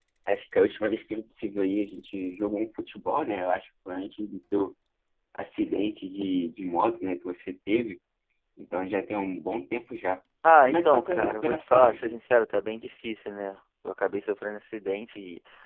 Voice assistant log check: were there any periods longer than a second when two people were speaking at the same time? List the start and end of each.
10.6-12.2

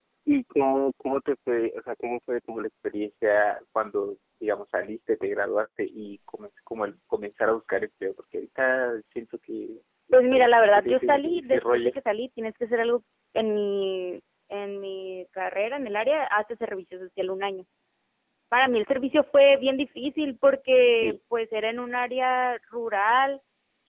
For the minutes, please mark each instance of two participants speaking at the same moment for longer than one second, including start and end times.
10.1-11.9

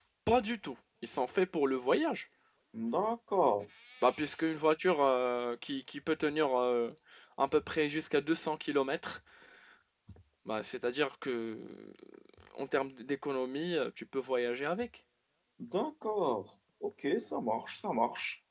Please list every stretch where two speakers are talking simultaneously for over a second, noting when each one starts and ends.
none

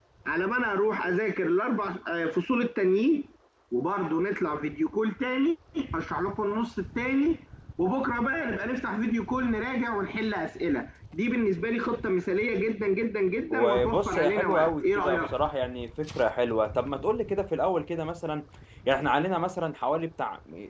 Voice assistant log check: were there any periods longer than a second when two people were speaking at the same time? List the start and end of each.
13.5-15.2

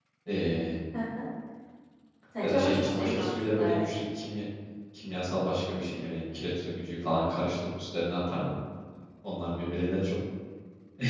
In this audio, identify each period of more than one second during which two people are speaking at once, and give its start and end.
2.4-3.8

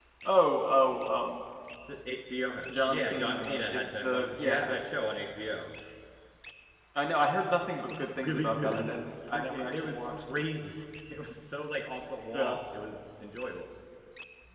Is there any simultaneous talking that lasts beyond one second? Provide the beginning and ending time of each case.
2.7-4.7, 7.9-10.4

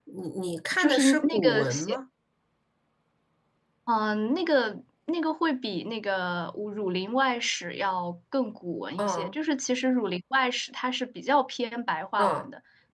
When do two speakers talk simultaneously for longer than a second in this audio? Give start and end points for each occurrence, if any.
0.8-2.0

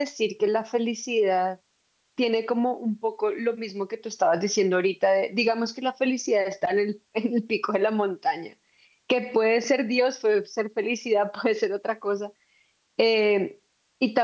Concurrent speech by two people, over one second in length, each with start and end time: none

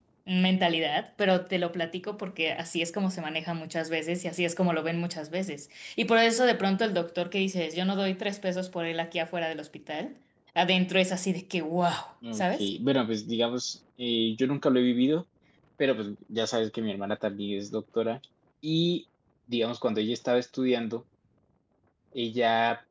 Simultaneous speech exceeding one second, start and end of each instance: none

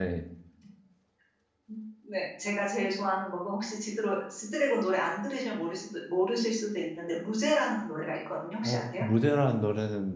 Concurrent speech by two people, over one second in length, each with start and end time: none

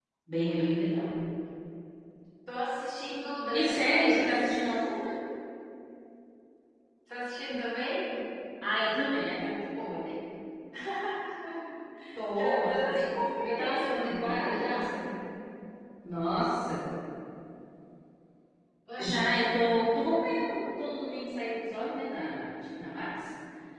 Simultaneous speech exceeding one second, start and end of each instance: 3.5-4.9, 12.4-14.9

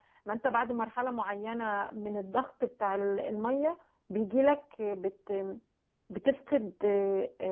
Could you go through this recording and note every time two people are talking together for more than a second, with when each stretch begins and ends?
none

